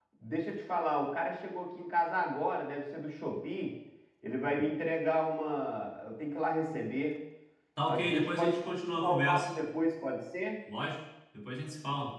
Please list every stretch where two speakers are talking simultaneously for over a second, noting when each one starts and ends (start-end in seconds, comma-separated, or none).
7.9-9.5